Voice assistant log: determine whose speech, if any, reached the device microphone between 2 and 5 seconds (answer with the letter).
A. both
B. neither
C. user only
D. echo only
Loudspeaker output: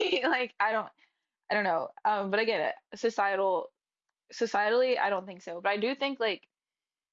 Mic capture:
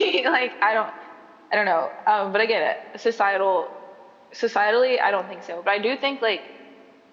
D